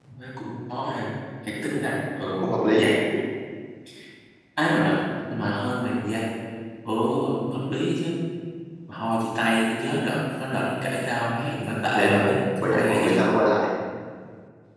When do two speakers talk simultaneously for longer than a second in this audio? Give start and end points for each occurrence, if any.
11.9-13.3

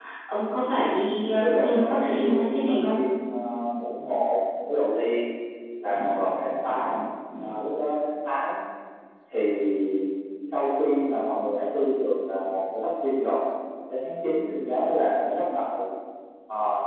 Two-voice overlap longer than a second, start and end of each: 1.0-3.0

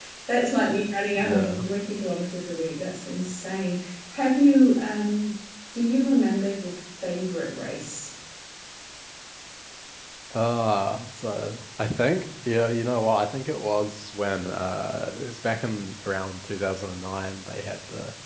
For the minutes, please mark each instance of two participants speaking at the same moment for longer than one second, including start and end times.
none

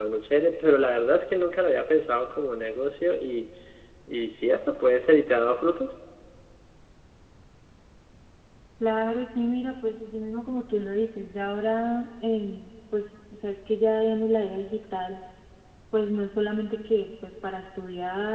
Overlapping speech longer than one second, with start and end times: none

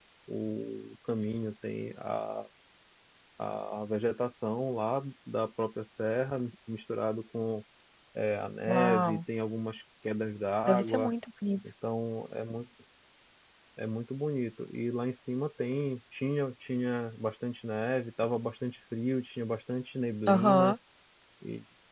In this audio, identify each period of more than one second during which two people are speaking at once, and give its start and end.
none

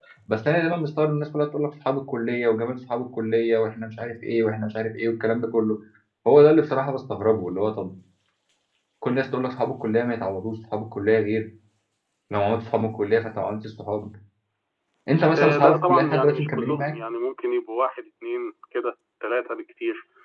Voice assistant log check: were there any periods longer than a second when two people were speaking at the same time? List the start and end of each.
15.3-16.9

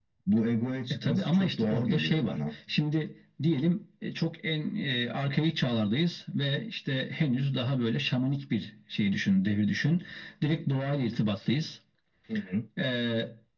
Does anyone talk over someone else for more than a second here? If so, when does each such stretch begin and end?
1.0-2.4

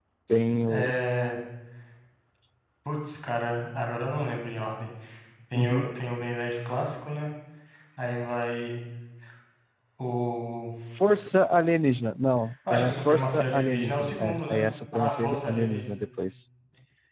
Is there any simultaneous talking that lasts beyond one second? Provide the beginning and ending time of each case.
12.7-16.0

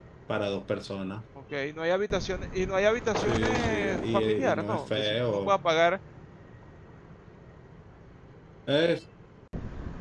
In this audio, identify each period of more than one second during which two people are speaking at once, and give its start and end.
3.2-5.5

